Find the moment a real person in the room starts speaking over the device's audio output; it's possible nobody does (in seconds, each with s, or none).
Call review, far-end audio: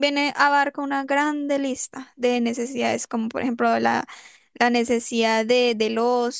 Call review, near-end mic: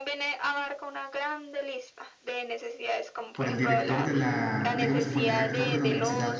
3.3 s